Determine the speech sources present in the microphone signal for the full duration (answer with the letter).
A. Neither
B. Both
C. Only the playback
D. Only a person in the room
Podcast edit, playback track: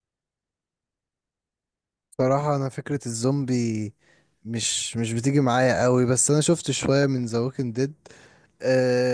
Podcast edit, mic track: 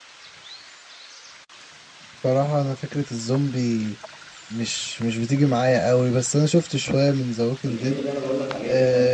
B